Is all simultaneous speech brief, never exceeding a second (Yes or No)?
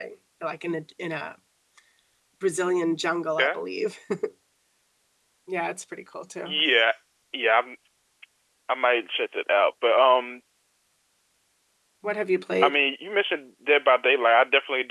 Yes